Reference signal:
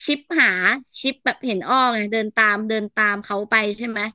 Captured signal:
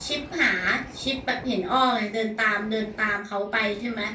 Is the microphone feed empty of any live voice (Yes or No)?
Yes